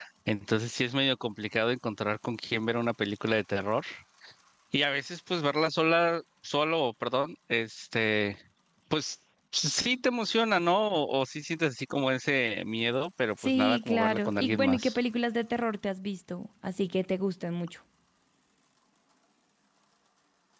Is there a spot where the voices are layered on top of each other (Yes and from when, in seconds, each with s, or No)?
Yes, from 13.4 s